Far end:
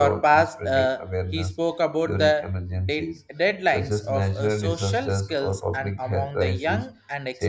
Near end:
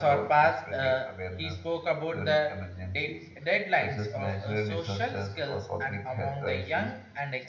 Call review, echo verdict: present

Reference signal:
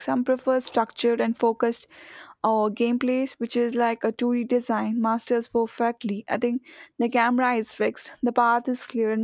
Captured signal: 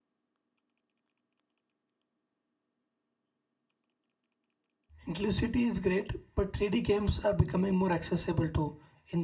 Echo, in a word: none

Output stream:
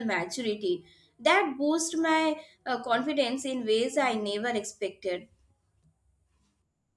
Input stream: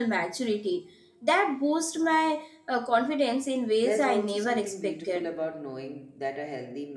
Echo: present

